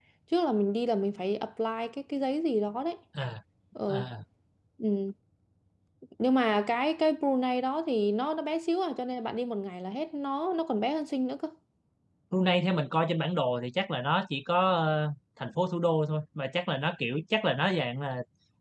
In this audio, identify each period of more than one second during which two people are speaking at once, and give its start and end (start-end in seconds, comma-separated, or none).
none